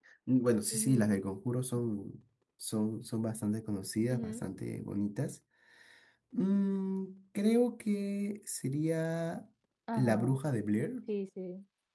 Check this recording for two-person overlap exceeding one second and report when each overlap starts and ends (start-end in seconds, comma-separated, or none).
none